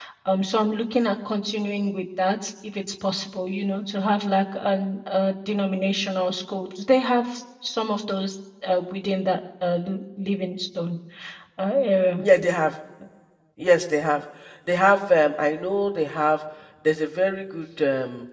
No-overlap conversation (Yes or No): Yes